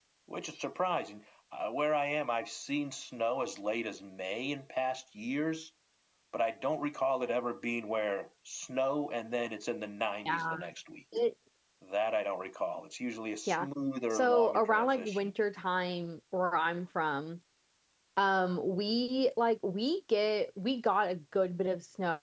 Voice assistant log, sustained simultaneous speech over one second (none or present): present